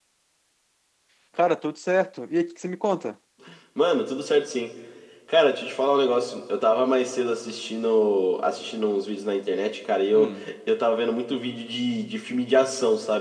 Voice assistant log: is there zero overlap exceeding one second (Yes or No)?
Yes